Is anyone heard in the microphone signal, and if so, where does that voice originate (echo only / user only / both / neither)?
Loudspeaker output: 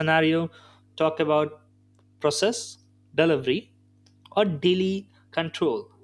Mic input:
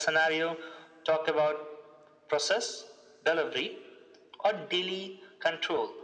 echo only